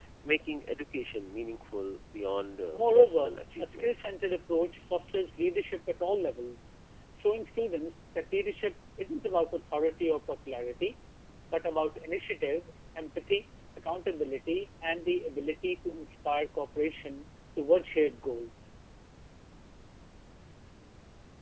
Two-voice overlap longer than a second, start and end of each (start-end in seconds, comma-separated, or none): 2.7-3.9